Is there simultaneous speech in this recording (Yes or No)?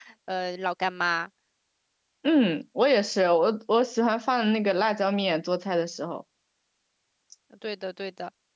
No